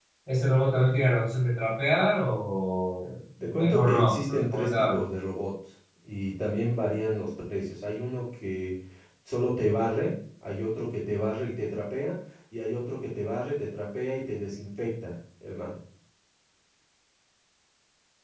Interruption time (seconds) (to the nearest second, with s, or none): 3 s